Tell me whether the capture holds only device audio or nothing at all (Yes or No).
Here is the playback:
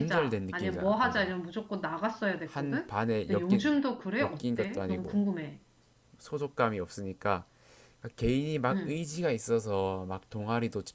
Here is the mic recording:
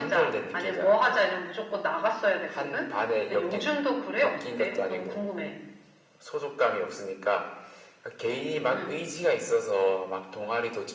Yes